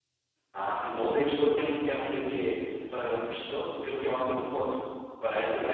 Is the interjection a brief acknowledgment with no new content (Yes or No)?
No